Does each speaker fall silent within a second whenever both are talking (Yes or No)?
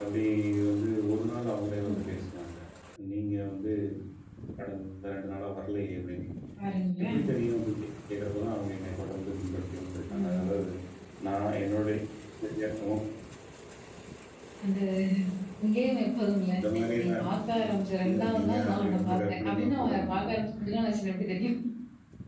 No